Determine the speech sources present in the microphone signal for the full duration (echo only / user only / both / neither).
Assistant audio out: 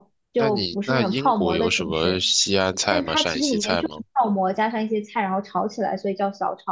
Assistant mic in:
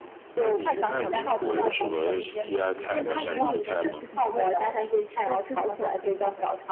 both